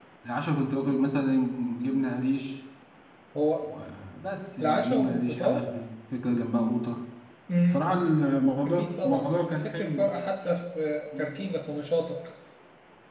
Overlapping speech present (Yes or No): Yes